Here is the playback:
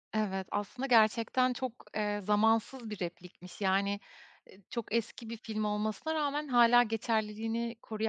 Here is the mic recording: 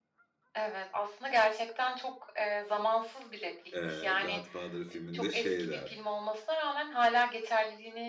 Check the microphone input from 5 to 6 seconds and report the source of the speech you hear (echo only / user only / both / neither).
both